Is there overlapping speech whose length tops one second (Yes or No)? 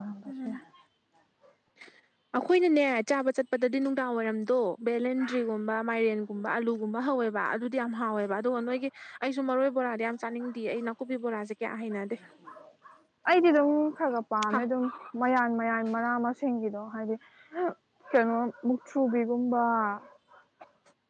No